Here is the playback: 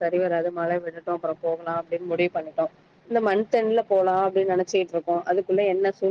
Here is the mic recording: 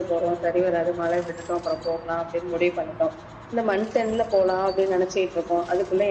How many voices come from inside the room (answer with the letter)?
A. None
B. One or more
A